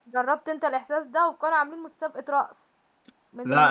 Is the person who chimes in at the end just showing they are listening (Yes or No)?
Yes